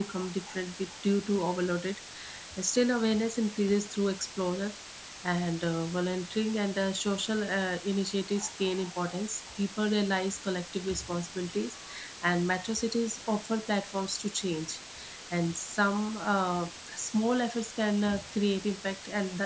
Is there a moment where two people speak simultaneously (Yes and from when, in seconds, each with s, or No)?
No